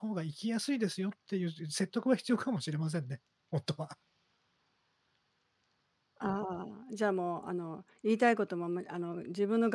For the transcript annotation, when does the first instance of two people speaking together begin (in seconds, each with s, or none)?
none